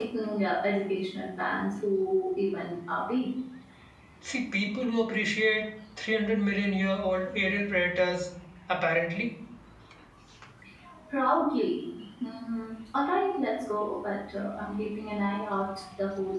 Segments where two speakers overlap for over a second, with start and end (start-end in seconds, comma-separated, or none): none